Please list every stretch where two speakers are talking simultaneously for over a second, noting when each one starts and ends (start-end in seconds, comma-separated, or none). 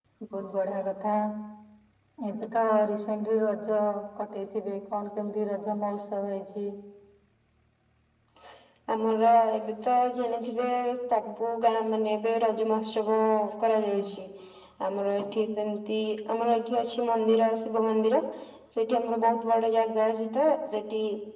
none